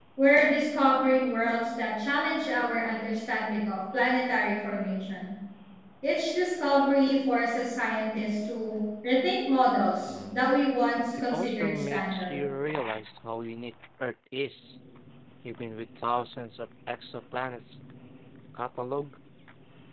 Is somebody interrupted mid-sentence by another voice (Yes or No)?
Yes